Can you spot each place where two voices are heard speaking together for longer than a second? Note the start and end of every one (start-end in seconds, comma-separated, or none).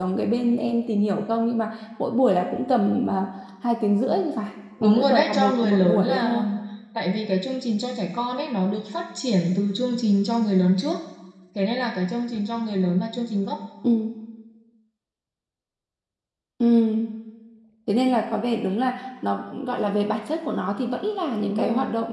4.8-6.4